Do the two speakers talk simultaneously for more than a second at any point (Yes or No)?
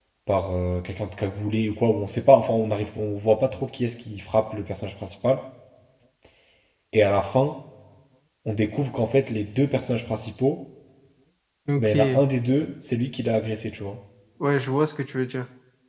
No